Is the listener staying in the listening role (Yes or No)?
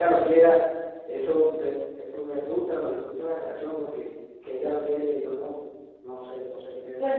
No